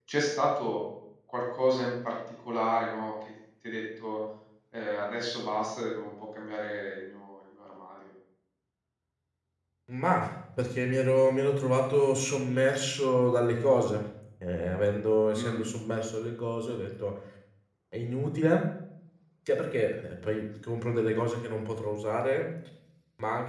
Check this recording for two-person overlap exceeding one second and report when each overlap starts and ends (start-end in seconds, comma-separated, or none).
none